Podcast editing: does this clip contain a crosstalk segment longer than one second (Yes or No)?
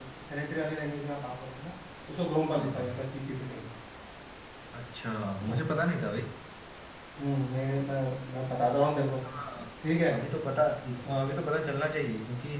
No